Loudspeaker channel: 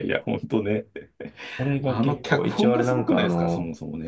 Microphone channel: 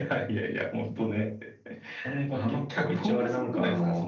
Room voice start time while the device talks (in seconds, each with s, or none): none